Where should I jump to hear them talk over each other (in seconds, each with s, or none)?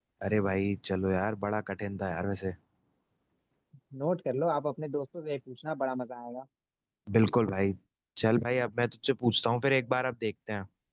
none